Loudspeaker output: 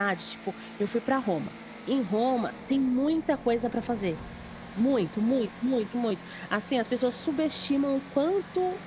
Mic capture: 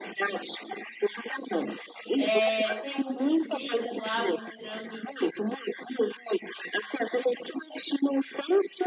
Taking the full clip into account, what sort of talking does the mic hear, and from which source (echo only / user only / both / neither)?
both